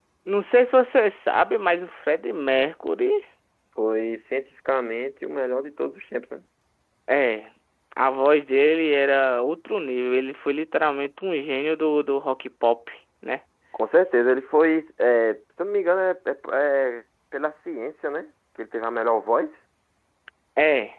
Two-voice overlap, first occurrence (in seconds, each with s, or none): none